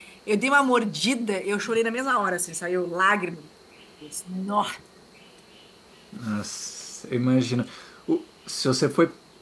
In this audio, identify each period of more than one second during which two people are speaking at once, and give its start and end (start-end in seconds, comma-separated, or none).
none